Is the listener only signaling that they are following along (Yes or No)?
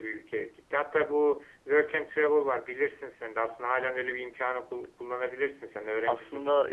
No